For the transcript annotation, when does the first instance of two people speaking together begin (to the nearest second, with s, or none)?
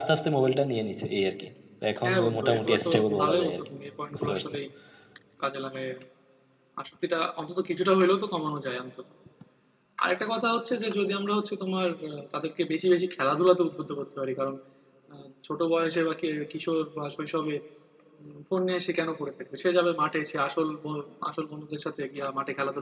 2 s